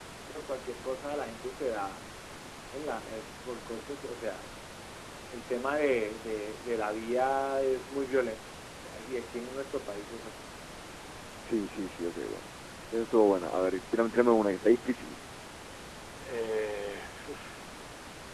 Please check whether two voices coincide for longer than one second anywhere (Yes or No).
No